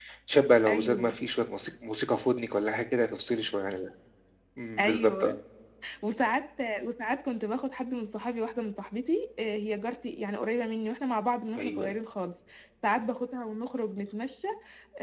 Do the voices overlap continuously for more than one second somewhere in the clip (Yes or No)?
No